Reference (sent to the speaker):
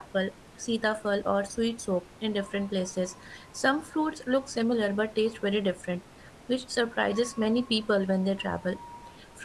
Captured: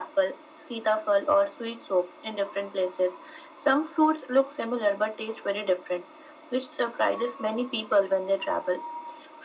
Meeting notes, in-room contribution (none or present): none